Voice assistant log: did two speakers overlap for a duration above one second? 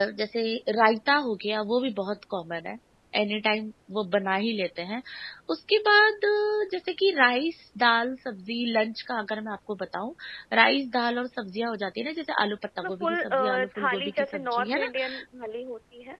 Yes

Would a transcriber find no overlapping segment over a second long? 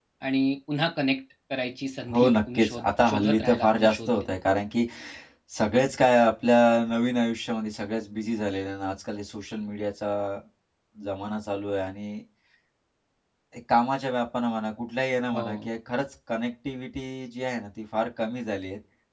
No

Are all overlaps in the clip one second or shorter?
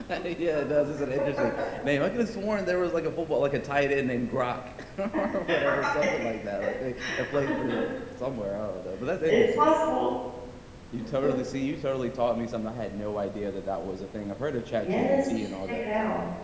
No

